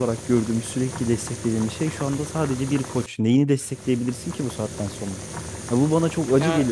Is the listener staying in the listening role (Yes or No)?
Yes